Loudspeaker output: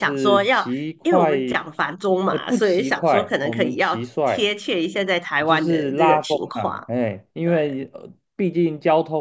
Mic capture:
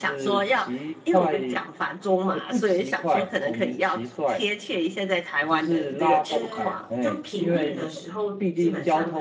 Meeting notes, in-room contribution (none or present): present